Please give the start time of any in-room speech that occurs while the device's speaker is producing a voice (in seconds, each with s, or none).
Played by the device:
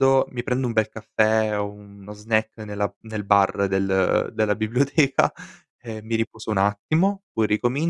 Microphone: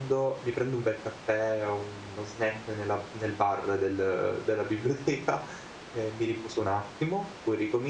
none